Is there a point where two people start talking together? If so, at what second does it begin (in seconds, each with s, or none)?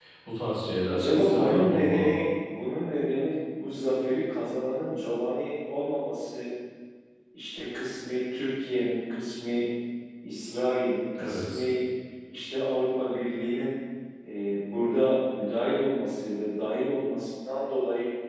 0.9 s